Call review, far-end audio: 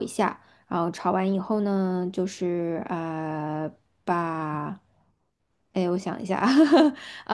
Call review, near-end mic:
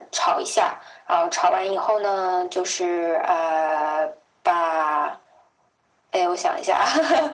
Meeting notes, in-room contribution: none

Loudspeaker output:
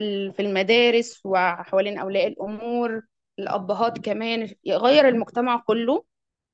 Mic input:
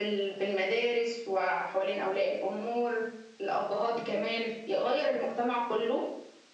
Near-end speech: none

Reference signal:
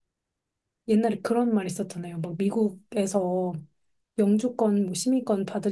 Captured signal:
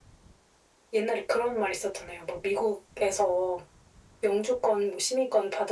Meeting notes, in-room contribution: none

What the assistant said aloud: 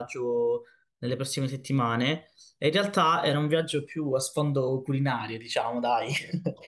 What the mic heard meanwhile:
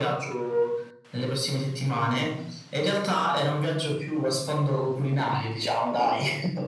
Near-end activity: none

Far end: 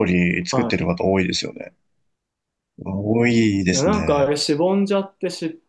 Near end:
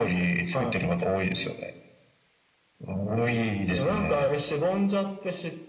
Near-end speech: none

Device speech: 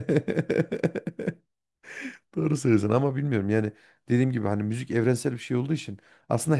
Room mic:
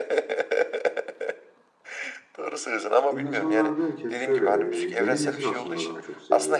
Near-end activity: present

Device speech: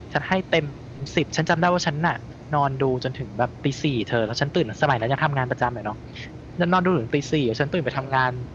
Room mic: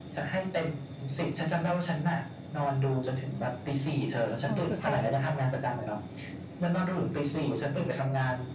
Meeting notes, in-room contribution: present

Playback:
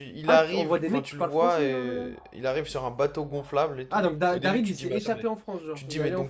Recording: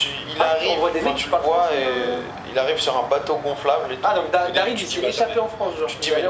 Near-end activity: none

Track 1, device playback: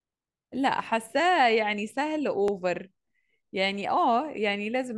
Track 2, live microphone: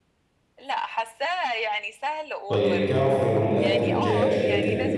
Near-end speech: present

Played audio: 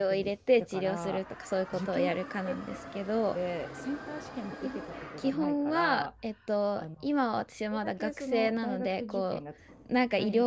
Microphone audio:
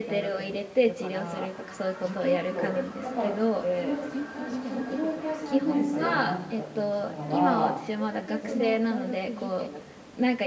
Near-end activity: present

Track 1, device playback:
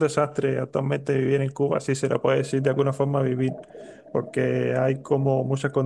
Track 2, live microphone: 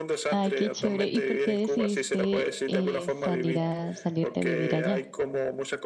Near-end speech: present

